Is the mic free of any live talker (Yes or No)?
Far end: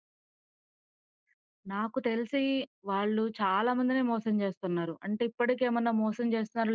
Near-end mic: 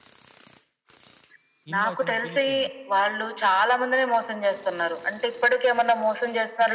No